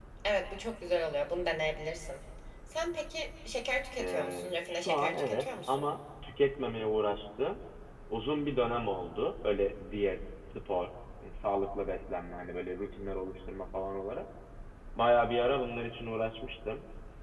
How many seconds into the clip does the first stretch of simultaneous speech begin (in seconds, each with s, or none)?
4.0 s